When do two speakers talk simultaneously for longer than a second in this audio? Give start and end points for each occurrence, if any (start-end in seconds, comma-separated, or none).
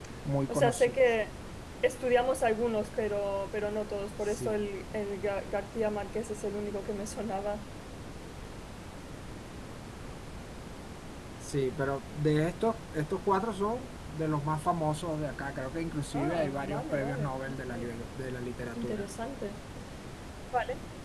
16.1-17.6